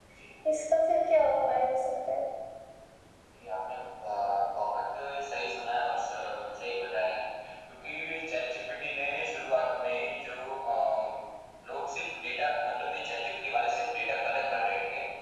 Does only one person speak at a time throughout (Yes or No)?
Yes